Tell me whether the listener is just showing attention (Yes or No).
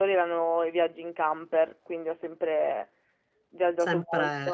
Yes